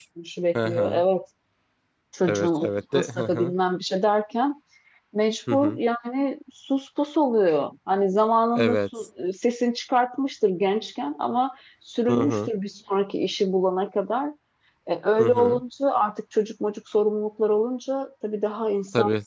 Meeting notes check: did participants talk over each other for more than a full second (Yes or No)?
Yes